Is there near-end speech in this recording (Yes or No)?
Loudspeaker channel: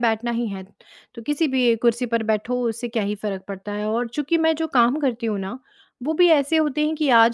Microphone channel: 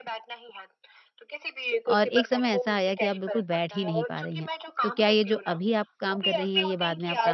Yes